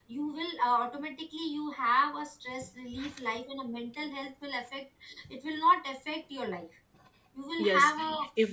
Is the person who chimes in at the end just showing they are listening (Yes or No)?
No